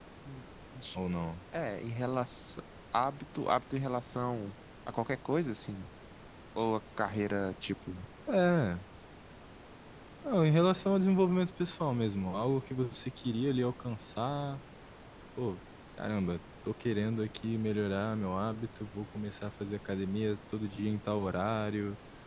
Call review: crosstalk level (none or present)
none